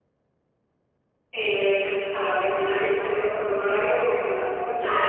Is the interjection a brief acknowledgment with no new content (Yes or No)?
No